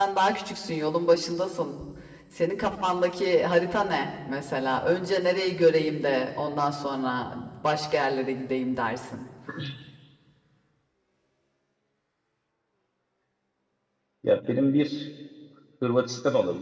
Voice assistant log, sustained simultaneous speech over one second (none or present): none